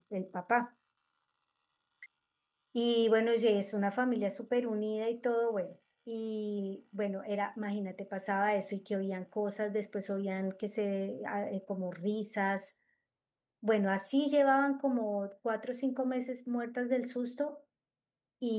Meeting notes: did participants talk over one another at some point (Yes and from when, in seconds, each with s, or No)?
No